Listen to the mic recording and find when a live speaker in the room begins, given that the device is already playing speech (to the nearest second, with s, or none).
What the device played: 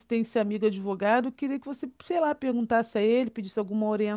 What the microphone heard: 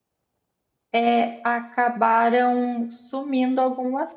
1 s